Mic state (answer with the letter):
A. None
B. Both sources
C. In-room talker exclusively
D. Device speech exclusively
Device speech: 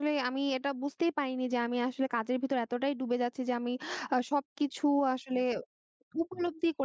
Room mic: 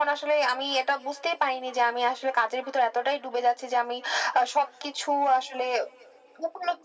D